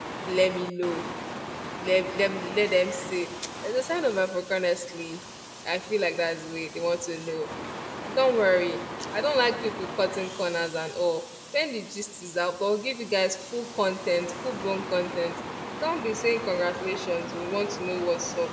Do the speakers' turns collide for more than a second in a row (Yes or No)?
No